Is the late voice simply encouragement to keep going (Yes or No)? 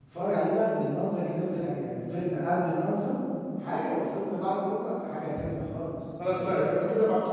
No